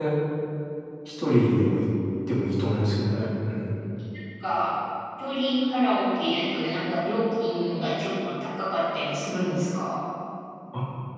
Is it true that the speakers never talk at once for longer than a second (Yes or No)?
Yes